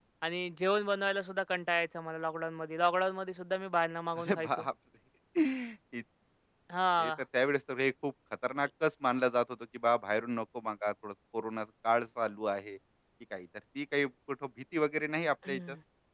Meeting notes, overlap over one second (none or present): none